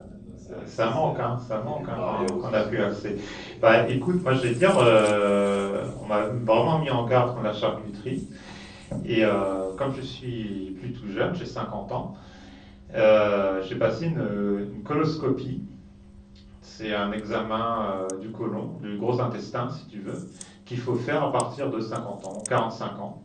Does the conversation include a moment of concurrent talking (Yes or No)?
Yes